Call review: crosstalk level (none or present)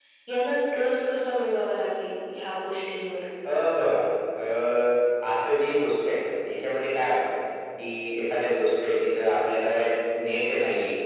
none